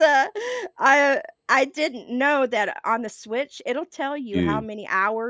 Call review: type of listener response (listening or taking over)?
listening